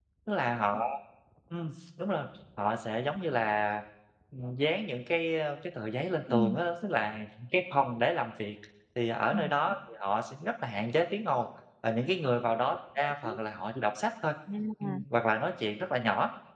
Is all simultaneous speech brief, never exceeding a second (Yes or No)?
Yes